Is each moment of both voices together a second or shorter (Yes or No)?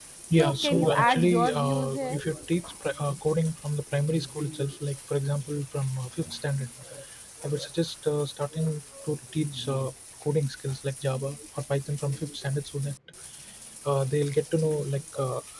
No